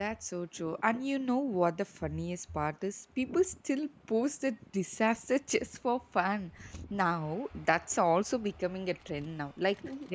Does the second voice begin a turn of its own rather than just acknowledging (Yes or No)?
No